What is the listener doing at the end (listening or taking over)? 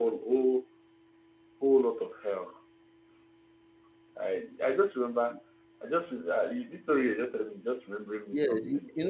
taking over